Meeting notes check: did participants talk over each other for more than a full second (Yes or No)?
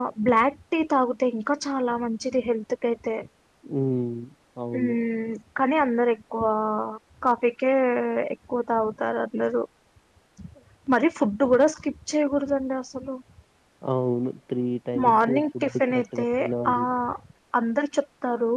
Yes